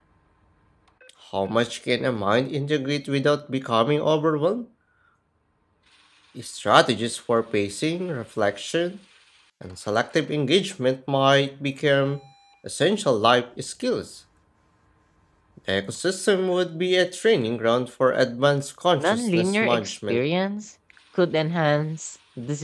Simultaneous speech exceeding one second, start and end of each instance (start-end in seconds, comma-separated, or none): 19.0-20.2